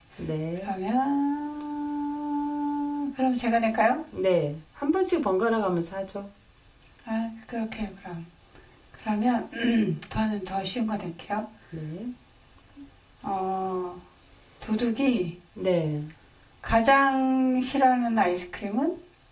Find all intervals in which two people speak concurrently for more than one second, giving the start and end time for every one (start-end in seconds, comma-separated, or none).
none